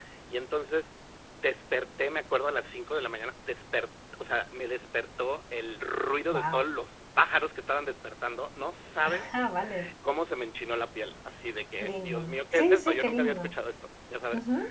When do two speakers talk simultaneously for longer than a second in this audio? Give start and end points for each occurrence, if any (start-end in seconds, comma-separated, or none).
11.7-13.5